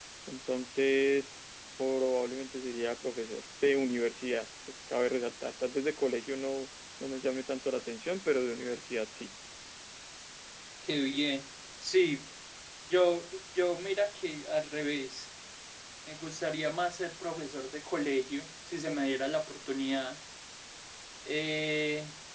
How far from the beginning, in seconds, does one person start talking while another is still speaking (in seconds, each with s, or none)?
none